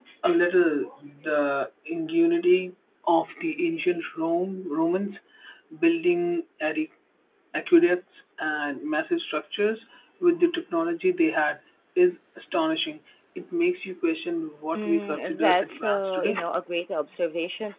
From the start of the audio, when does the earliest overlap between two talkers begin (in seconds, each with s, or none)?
14.8 s